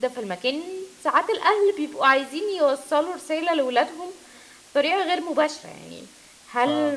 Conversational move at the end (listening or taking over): listening